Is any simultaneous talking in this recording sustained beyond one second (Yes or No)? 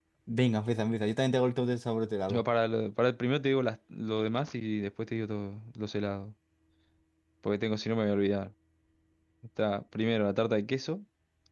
No